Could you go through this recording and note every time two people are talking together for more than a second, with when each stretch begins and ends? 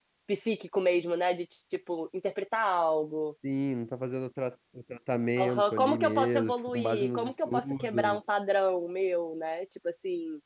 5.4-8.2

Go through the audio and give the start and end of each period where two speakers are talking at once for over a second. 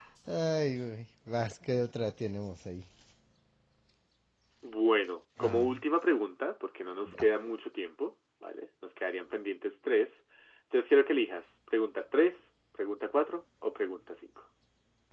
none

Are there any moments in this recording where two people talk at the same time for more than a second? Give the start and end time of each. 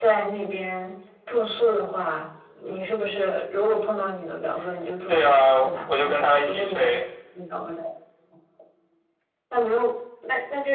5.1-7.0

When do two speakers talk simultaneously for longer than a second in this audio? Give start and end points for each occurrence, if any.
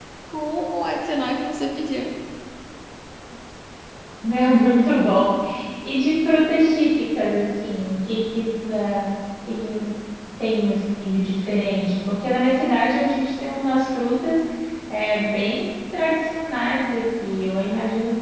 none

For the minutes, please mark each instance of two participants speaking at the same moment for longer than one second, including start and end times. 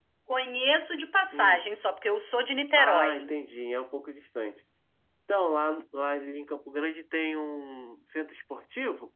none

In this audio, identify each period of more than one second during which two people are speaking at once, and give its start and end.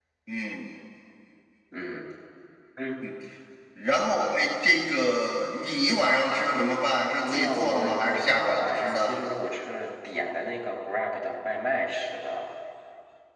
7.2-9.1

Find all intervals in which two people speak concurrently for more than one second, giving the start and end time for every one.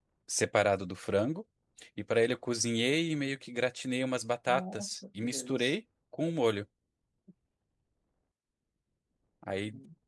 4.5-5.8

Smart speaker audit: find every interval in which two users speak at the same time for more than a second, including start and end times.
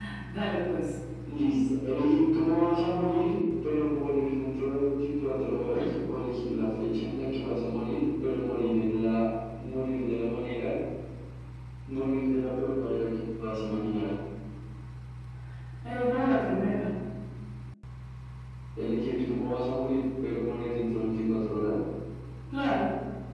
none

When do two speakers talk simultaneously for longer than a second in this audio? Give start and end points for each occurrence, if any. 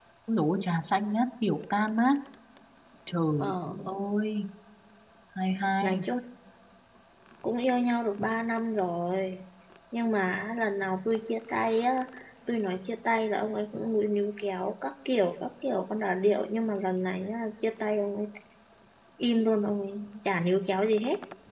none

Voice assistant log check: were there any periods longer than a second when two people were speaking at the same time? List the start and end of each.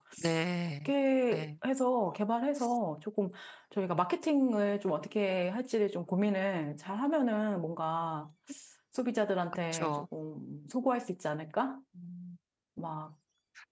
none

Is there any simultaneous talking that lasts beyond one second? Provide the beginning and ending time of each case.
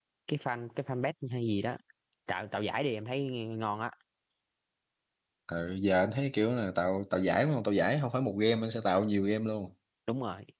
none

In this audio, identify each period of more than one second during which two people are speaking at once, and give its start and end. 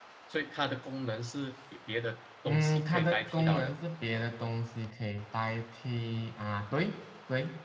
2.4-3.7

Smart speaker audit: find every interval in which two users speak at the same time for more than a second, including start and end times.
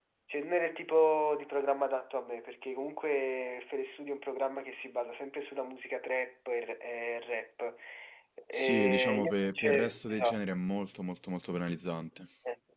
8.5-10.4

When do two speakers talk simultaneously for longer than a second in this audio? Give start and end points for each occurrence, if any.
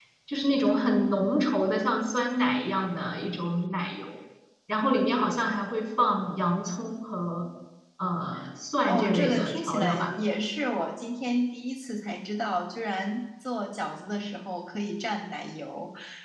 8.8-10.1

